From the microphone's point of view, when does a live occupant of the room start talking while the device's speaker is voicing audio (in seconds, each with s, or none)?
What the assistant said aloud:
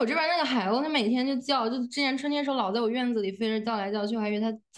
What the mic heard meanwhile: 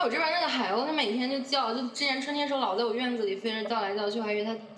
none